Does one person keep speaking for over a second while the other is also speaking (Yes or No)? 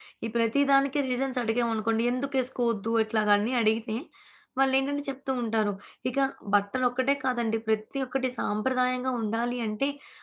No